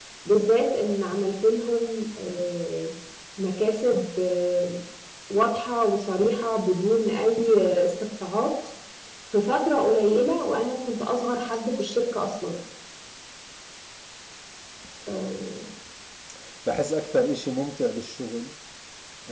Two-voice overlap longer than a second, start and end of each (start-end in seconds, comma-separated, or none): none